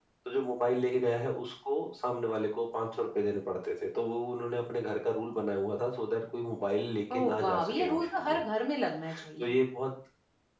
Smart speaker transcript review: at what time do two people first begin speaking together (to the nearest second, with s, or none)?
7 s